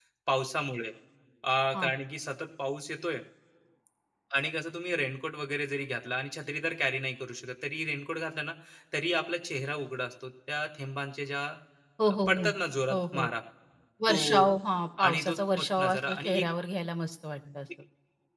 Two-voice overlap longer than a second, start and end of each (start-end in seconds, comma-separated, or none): 15.0-16.4